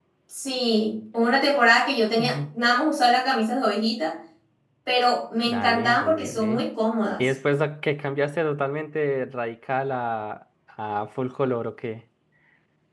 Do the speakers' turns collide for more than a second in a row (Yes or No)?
Yes